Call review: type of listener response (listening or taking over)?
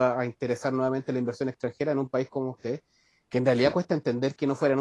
listening